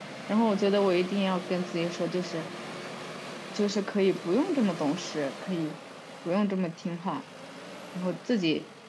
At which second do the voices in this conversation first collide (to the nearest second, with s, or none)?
none